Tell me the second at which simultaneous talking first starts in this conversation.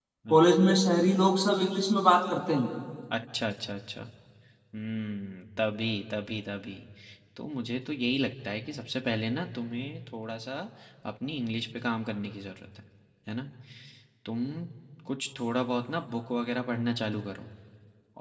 none

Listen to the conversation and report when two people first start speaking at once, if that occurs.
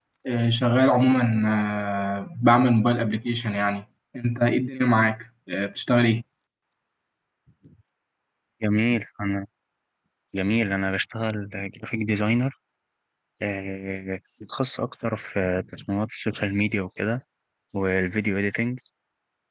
none

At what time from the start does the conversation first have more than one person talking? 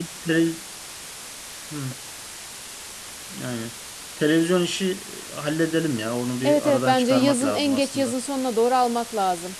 6.4 s

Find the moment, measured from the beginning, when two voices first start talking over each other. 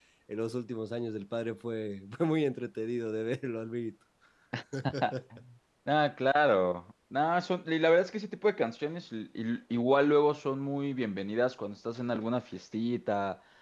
none

